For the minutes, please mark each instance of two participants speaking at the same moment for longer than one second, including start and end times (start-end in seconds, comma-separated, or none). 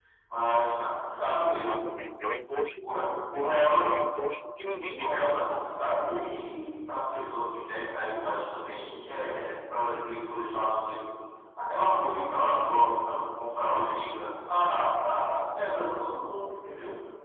none